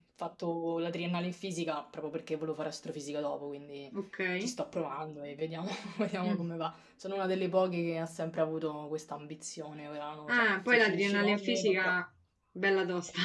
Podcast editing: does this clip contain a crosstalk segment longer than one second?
Yes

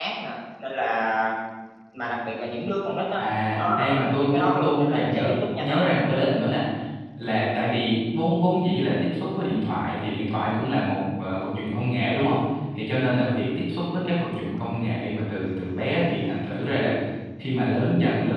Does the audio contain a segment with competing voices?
Yes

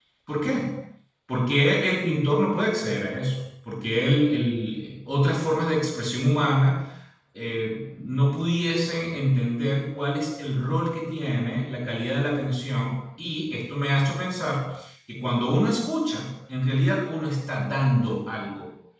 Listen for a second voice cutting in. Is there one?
No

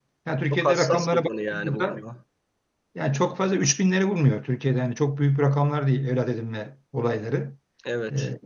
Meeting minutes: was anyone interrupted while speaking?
Yes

